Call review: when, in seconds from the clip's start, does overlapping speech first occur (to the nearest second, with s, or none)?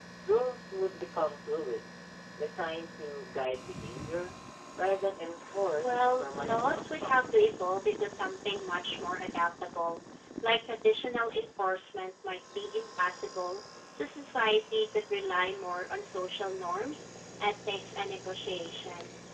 6 s